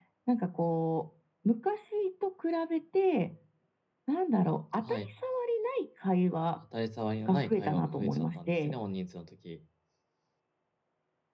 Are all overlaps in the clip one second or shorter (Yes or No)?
No